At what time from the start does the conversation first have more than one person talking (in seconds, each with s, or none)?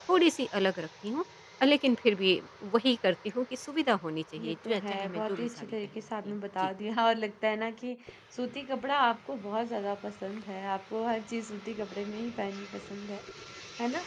4.3 s